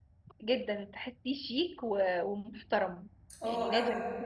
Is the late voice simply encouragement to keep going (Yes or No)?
Yes